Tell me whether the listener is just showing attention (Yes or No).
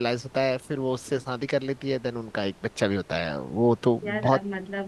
No